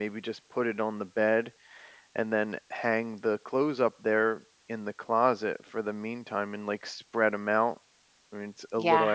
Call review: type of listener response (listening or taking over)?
taking over